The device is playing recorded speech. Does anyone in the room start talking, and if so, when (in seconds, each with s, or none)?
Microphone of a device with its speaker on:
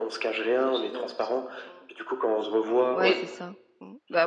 2.9 s